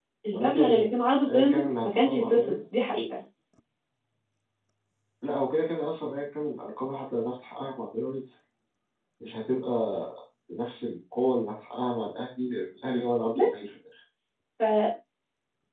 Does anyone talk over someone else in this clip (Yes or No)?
Yes